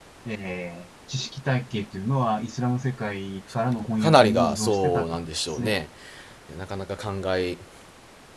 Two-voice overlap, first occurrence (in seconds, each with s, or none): 4.0 s